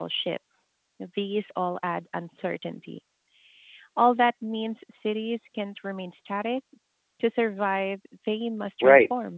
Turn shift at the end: Yes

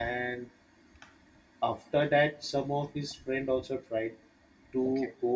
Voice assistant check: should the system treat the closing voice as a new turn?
No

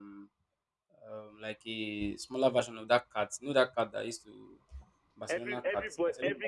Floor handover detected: Yes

